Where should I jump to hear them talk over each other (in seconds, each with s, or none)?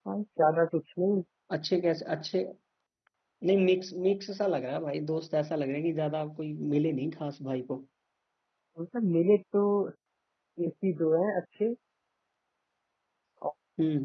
none